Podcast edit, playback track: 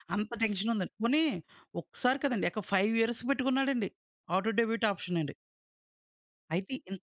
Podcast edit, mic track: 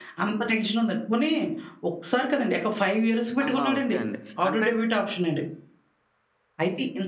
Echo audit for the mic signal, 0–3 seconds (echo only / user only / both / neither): echo only